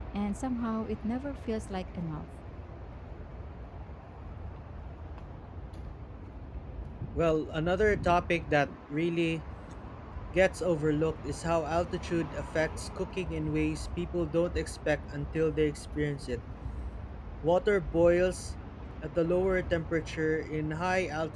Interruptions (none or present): none